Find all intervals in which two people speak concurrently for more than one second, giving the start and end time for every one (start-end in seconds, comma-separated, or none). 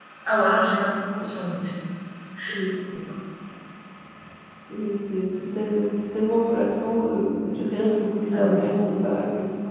none